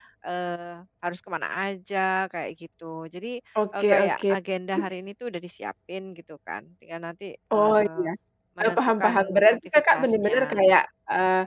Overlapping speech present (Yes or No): Yes